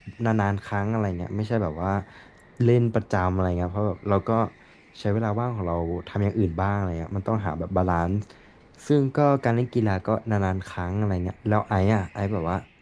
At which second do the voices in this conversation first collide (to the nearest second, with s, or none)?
none